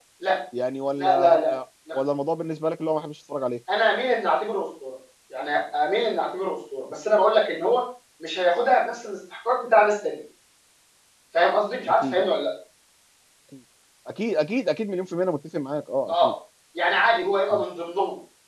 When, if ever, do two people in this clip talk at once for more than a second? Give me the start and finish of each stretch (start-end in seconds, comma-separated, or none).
none